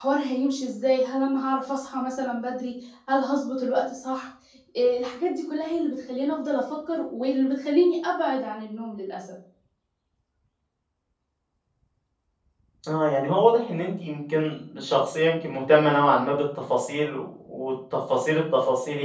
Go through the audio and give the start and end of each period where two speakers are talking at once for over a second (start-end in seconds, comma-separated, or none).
none